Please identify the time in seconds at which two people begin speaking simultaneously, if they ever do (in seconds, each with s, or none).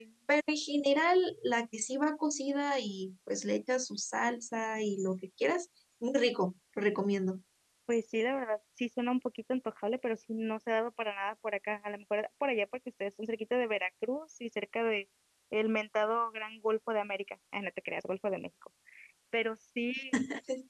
none